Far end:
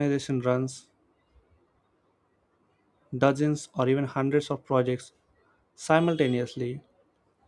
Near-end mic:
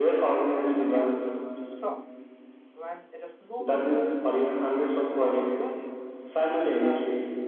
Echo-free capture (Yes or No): No